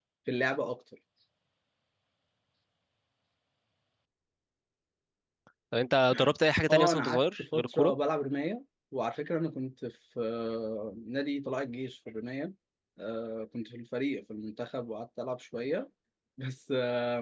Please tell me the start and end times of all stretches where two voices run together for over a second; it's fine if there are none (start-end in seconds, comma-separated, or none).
6.7-7.9